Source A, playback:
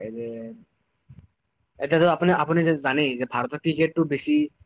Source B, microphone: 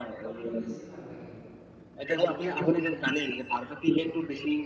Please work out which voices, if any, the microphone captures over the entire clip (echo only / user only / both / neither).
both